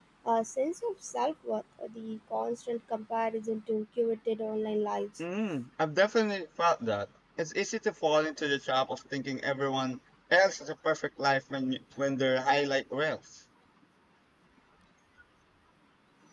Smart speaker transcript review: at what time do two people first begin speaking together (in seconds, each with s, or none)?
none